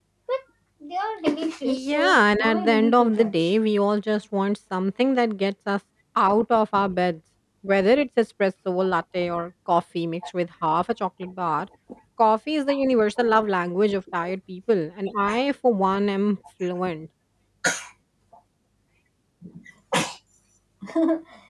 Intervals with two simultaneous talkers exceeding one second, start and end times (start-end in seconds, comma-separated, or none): 1.6-3.5